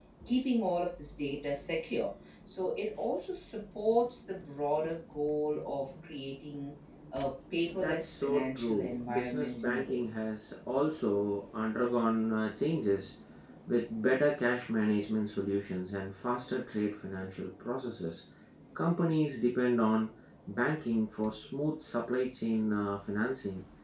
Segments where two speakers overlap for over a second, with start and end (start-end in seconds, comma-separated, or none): 7.7-10.1